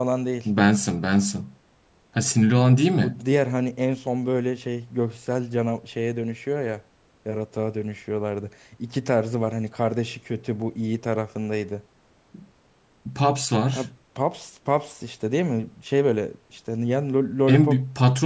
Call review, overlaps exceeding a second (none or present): none